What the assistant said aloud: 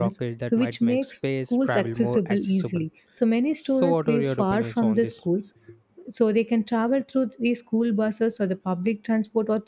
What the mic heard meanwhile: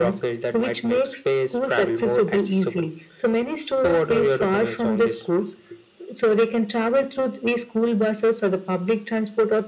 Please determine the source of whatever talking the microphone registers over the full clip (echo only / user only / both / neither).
echo only